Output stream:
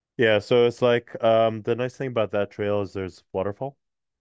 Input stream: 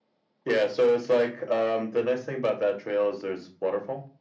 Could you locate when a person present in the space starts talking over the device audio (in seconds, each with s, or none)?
none